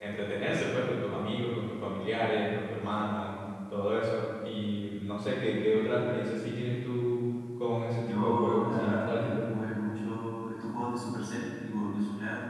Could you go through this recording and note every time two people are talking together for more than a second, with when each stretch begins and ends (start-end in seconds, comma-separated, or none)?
8.1-9.4